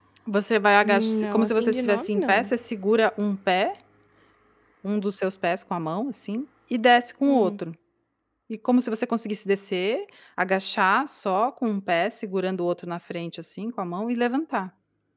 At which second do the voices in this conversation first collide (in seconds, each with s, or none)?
0.8 s